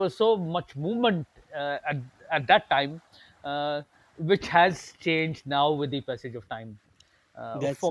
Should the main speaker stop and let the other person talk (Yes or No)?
No